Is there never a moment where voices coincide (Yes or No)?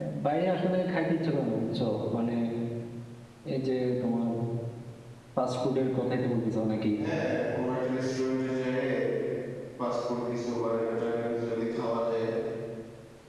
Yes